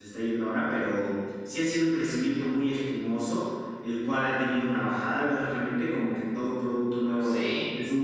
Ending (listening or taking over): listening